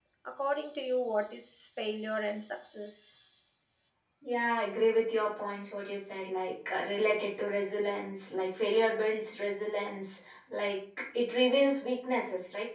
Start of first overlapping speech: none

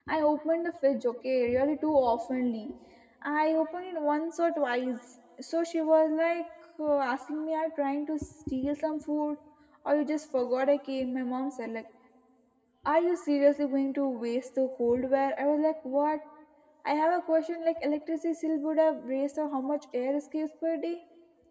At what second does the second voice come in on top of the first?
none

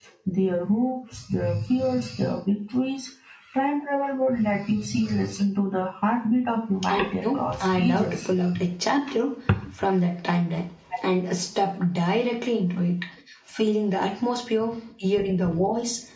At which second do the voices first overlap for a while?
7 s

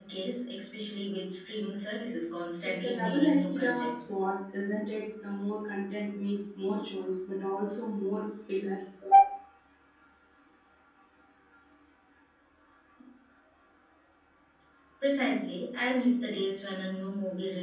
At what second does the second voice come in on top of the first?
3 s

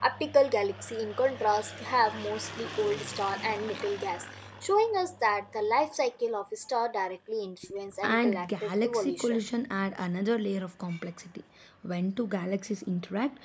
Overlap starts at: 8 s

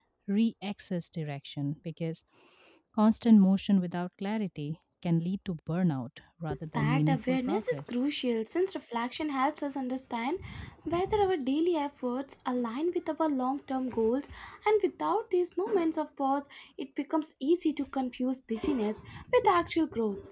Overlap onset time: 7 s

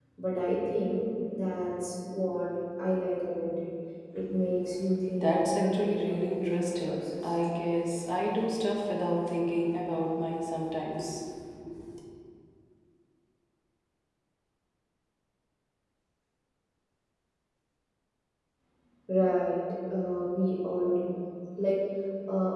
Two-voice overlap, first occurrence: 5 s

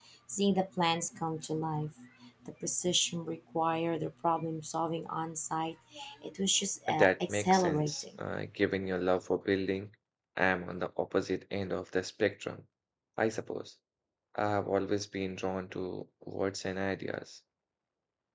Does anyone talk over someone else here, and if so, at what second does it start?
7 s

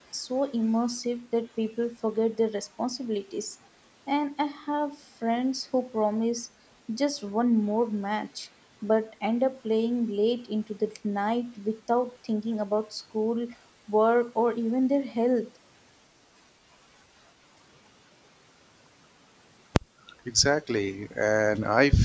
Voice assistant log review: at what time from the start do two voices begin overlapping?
none

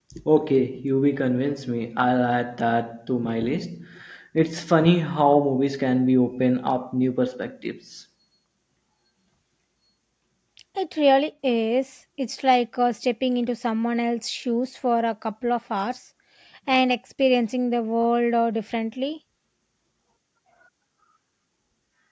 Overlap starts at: none

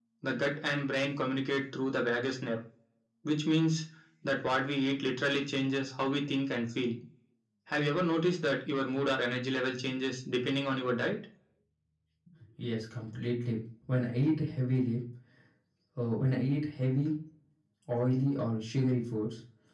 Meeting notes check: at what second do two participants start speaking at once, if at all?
none

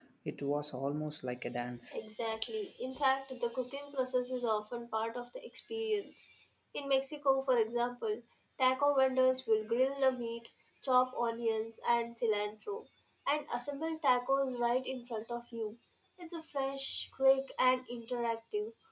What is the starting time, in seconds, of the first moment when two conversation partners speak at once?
none

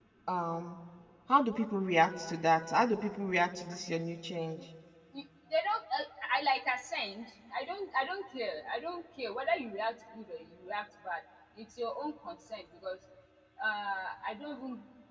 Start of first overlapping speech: none

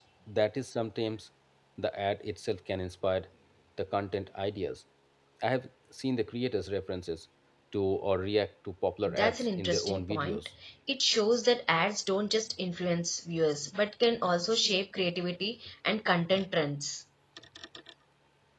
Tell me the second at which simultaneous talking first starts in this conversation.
9 s

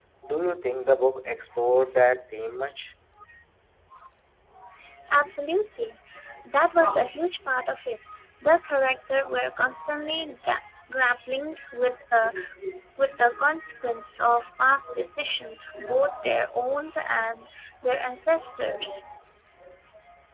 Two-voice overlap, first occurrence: none

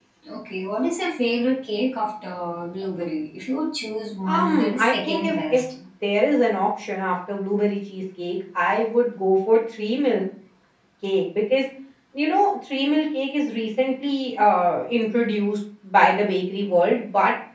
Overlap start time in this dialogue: 4 s

